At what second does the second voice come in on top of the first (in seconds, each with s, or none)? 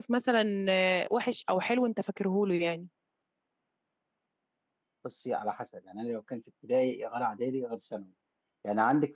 none